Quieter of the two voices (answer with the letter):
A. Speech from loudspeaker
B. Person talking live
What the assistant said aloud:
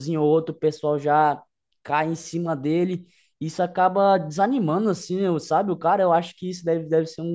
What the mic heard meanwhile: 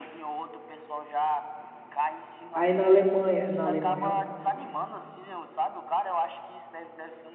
A